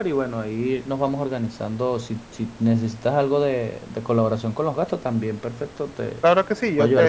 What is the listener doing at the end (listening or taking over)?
taking over